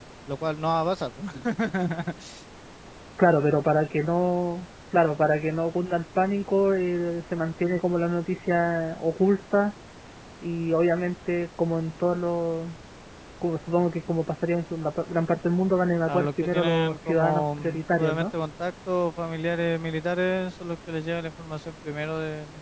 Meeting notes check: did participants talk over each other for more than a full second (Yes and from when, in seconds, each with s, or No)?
Yes, from 16.1 s